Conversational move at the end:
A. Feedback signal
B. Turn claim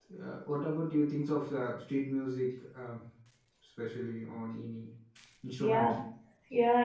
B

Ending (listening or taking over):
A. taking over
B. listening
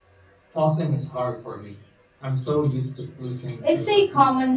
A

